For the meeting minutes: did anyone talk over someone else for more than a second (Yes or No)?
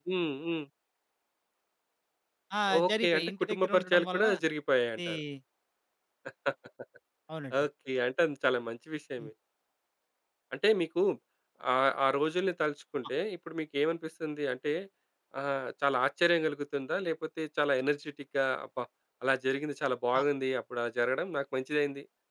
Yes